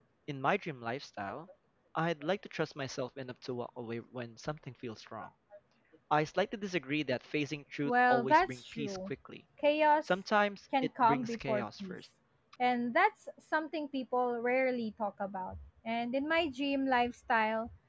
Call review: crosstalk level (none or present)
present